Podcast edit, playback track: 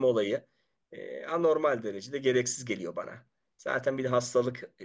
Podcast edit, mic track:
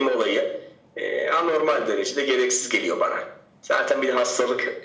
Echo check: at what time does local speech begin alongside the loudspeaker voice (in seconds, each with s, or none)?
none